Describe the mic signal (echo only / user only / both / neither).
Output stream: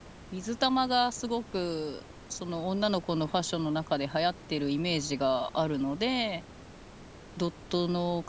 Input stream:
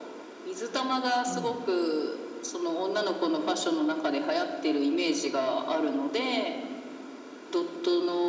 both